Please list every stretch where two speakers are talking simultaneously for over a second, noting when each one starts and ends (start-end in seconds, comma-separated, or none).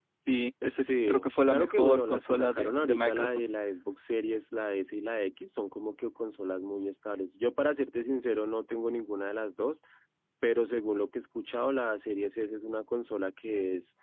0.8-3.4